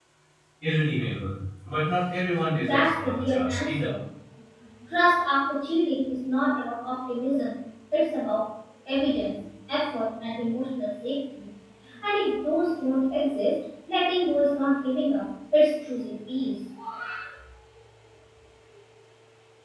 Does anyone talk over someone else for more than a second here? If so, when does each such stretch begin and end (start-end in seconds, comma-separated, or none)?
2.6-3.9